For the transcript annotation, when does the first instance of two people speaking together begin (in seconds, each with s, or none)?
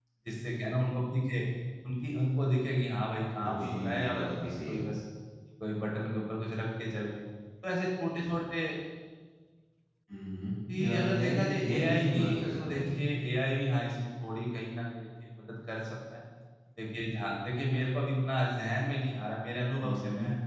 3.4 s